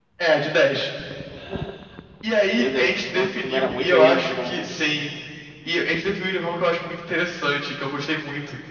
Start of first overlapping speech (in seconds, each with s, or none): 2.5 s